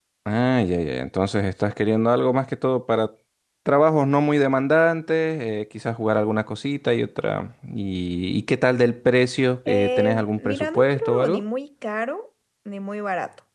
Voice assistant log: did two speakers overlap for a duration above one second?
Yes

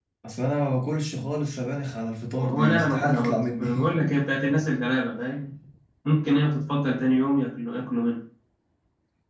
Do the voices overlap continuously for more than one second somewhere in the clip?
Yes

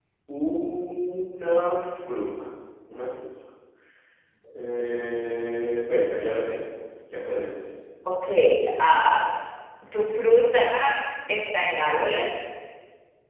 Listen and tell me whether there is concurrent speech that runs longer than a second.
No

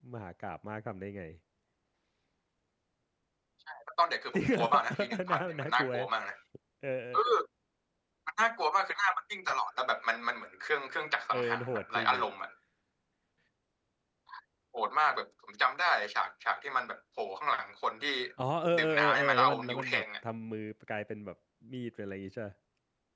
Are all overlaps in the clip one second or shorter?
No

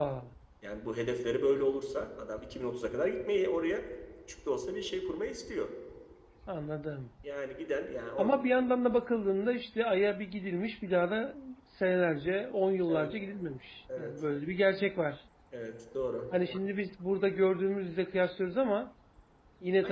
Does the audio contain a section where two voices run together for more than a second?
No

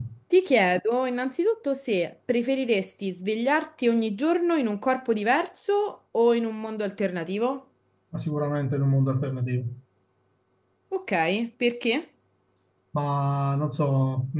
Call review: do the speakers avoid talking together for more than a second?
Yes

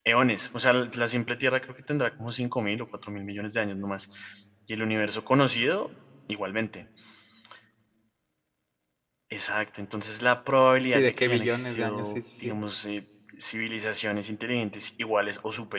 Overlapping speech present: Yes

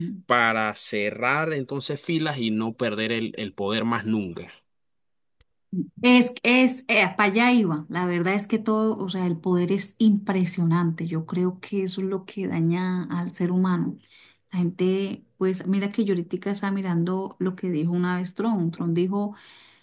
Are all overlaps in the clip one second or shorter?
Yes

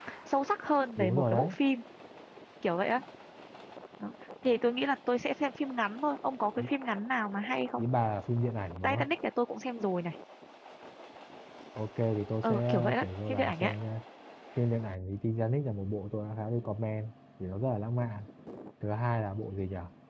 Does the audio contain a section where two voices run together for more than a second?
Yes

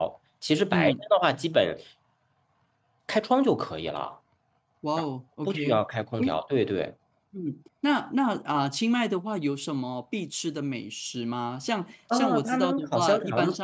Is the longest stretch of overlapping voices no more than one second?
No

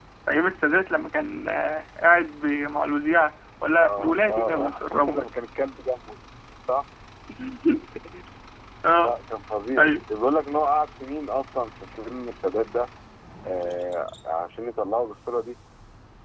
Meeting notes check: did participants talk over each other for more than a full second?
Yes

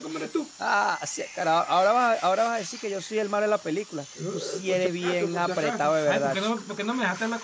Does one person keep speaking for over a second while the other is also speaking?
Yes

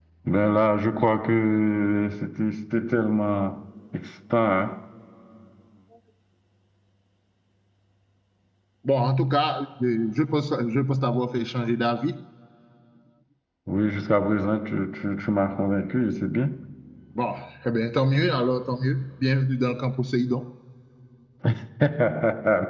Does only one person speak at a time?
Yes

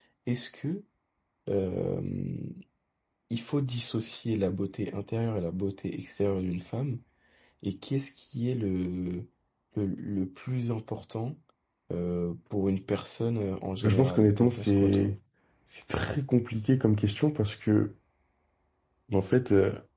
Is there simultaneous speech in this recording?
Yes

